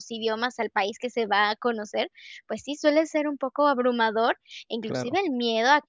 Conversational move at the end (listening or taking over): listening